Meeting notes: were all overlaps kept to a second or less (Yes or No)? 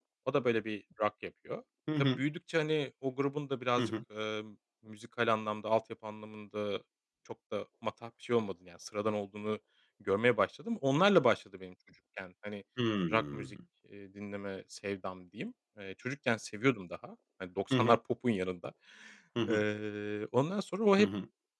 Yes